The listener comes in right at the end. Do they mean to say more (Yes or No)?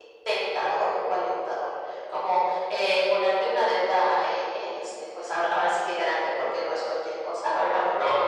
No